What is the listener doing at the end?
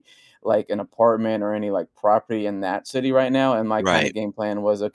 listening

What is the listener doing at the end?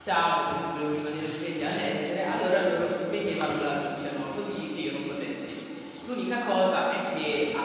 listening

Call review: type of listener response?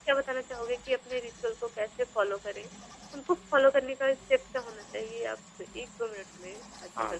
taking over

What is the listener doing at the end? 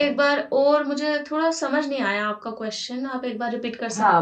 taking over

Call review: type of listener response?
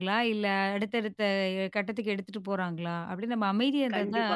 taking over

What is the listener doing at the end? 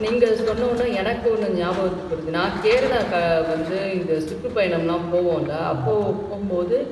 listening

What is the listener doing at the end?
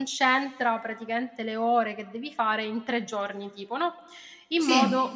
listening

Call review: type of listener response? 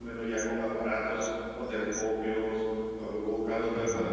listening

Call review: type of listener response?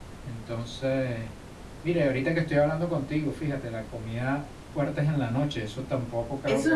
taking over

